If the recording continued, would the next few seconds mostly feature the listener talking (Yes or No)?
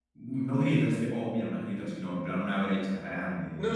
Yes